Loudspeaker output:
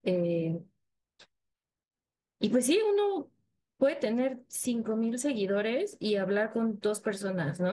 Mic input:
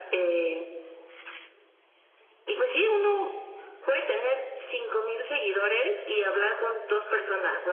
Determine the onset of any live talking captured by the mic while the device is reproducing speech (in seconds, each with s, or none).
none